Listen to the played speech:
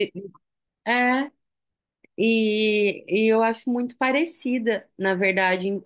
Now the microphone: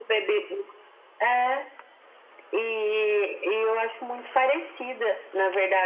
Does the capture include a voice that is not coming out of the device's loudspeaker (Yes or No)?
No